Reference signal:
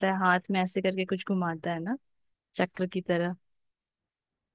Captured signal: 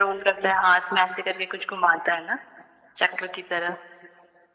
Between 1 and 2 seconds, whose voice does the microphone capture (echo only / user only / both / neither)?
echo only